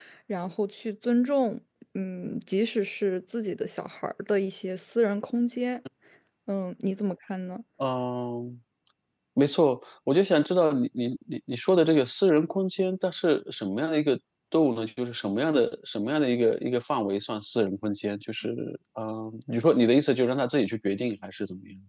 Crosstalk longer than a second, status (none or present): none